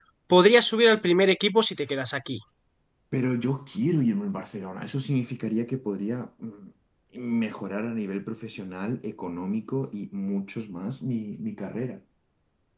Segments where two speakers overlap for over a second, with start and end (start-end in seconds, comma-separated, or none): none